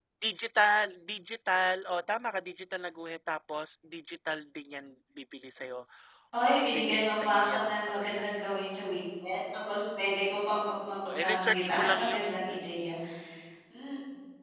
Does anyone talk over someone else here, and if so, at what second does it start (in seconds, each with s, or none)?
6.5 s